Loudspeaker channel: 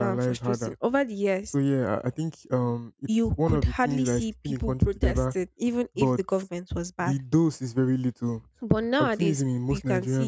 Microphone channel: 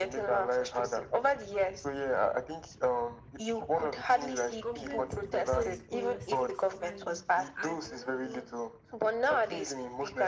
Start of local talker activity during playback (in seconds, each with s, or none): 4.6 s